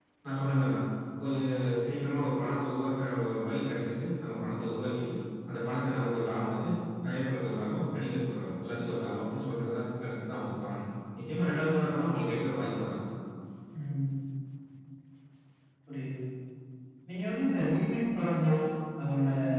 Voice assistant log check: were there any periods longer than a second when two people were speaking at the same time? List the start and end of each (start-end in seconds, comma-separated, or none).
none